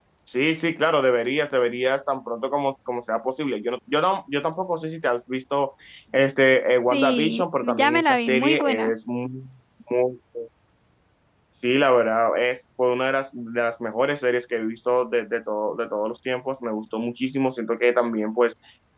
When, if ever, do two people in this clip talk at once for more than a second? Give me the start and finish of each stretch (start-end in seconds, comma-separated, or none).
6.9-8.9